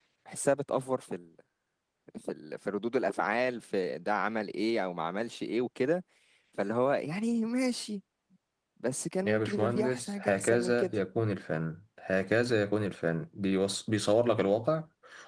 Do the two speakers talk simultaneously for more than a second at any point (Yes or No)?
Yes